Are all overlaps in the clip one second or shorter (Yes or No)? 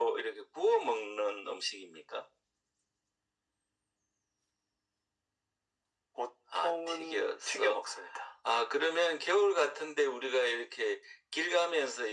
No